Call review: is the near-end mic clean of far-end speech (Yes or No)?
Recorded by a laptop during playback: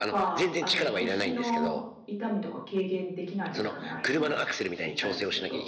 No